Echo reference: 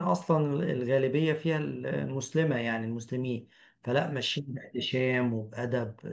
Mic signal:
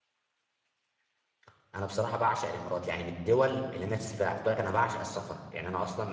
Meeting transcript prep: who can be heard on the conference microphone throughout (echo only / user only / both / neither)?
user only